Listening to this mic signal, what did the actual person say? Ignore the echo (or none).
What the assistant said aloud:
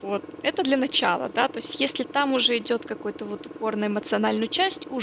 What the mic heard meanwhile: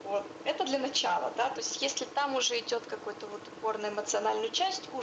none